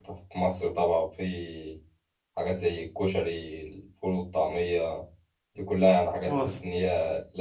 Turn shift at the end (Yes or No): No